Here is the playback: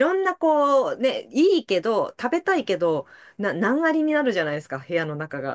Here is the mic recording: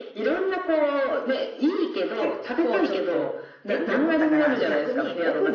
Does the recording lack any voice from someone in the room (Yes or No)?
No